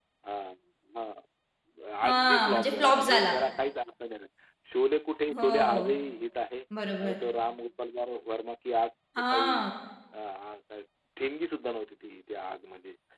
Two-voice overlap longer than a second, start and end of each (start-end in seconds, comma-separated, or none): 2.1-3.3